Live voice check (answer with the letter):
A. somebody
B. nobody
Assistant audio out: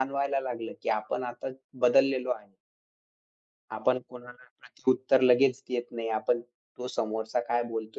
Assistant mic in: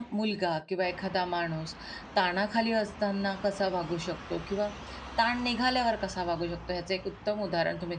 A